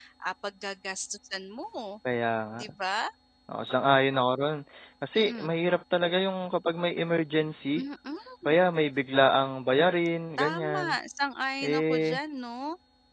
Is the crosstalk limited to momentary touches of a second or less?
Yes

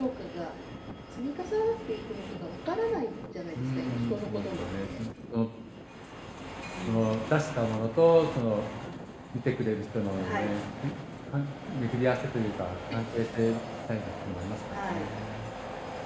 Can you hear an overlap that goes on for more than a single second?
Yes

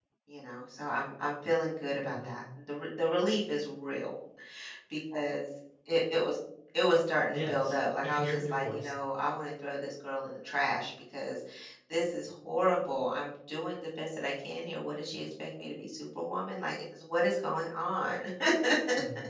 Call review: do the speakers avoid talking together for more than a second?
No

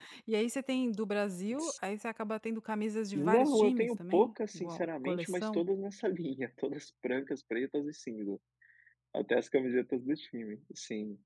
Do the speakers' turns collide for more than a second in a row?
Yes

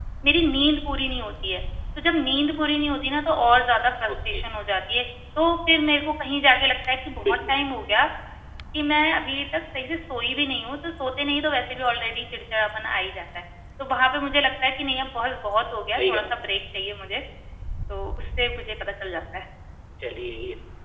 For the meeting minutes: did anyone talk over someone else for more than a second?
No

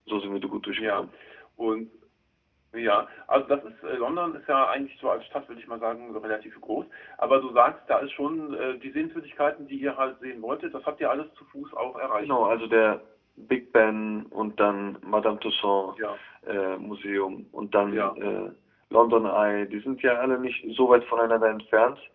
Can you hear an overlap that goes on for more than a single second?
No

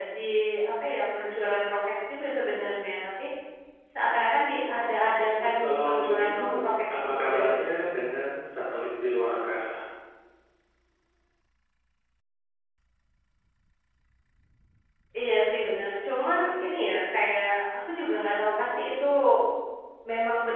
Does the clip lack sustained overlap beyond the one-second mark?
No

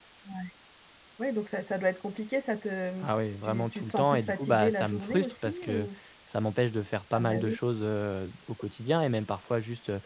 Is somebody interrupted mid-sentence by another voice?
Yes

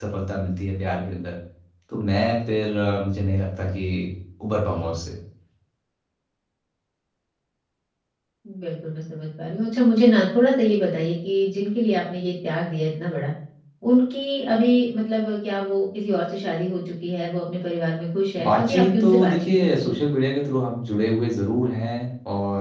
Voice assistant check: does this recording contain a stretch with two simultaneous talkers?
Yes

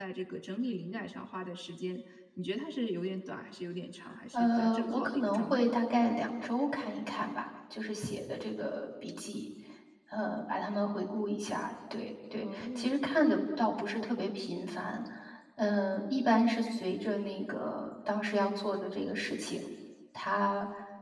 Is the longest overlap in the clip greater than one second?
Yes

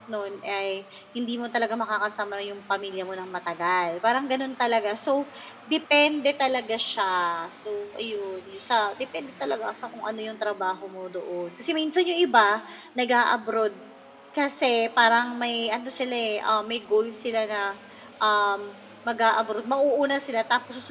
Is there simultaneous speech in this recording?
No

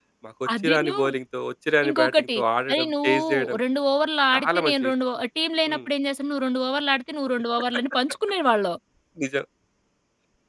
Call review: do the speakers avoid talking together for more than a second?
No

